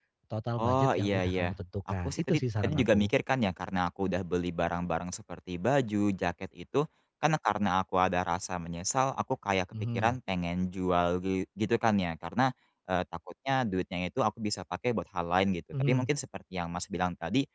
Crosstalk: present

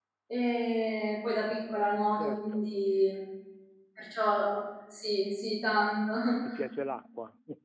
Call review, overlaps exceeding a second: none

